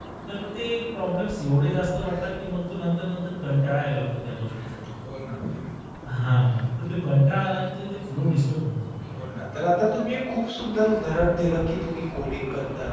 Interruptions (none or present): none